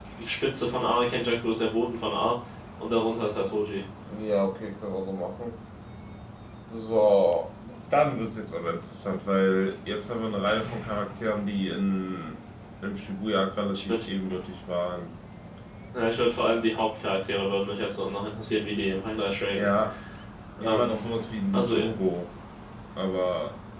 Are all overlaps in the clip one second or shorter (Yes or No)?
Yes